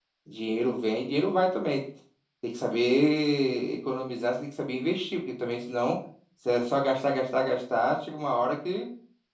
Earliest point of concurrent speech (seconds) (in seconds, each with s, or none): none